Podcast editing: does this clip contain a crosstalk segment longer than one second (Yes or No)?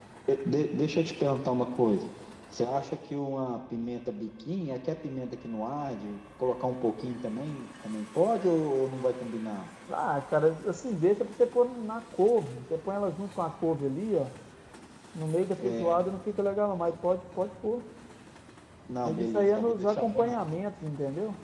Yes